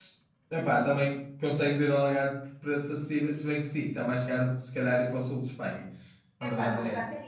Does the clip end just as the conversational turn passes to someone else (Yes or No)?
Yes